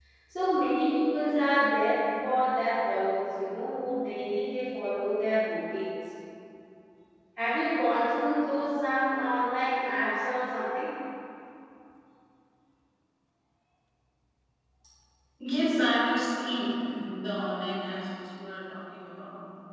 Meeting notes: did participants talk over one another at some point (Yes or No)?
No